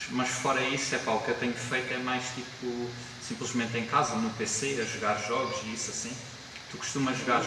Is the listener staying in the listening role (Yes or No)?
Yes